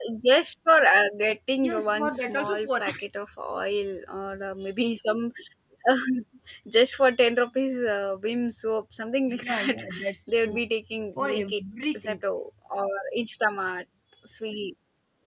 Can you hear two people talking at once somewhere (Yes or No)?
Yes